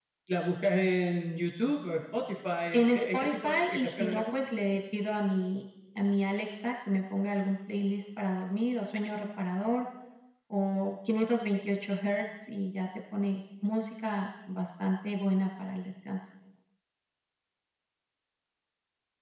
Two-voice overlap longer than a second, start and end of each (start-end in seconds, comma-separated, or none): 2.7-4.2